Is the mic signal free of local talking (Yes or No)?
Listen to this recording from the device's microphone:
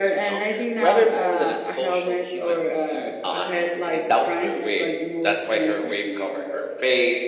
Yes